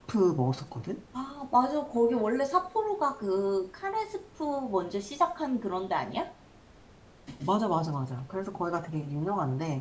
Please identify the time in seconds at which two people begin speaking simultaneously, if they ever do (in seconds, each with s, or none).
none